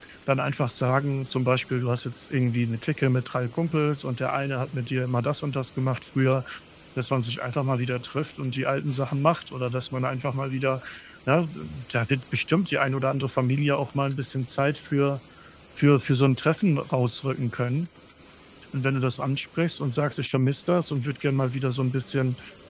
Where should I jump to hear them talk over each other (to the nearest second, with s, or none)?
none